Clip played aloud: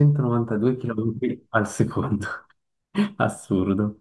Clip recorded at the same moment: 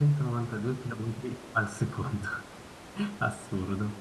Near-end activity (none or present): none